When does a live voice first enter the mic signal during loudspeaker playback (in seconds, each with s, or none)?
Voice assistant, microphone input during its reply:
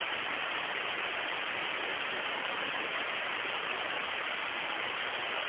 none